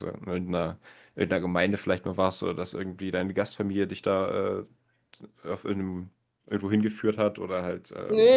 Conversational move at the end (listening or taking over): taking over